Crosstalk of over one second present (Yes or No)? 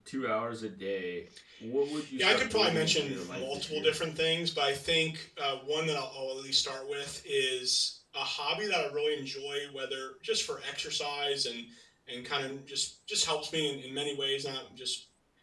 Yes